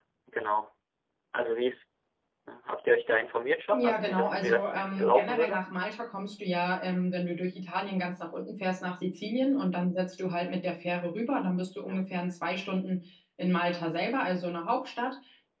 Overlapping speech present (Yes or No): Yes